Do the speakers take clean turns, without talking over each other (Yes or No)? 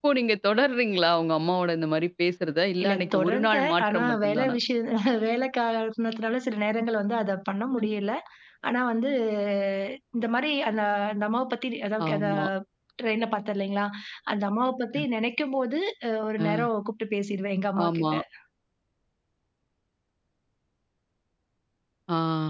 No